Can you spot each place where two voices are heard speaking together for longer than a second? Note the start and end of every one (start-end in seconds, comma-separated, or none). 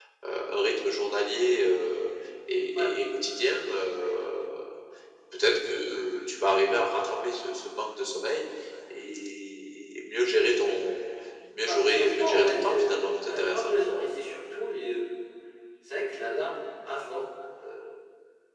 11.7-12.9